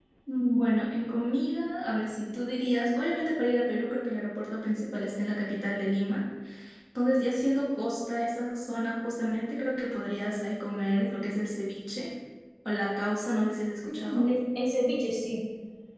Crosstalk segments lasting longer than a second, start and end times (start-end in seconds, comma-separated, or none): none